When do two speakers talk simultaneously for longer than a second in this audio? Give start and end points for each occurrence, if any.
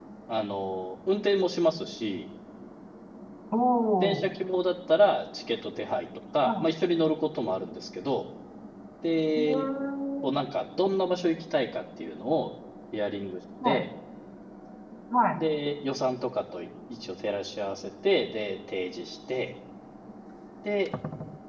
none

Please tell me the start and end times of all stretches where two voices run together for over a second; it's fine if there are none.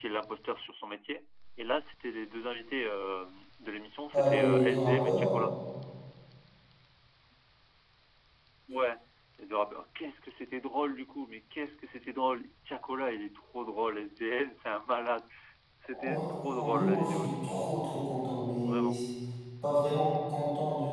4.1-5.4, 15.9-17.6

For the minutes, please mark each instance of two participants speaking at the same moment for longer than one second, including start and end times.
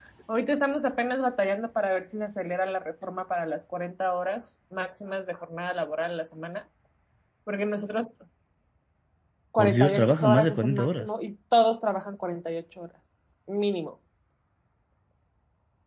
9.6-11.1

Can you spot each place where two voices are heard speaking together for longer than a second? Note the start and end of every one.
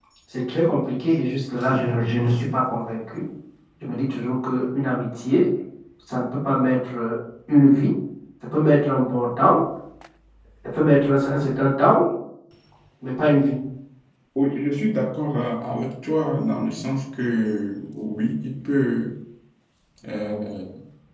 none

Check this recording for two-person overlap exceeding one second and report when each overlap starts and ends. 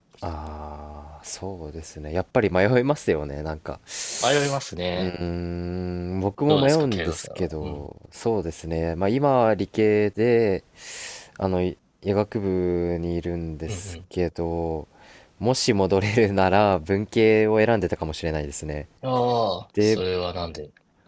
6.5-7.9

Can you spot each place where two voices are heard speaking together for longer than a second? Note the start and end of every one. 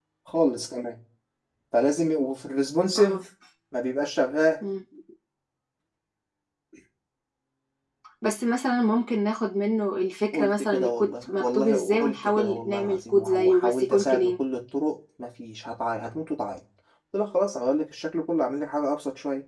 10.3-14.3

